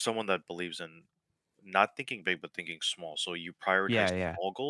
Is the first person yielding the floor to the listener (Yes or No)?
No